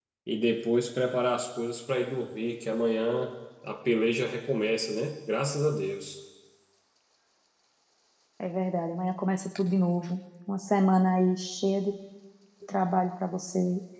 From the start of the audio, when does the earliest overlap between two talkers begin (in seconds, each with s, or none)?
none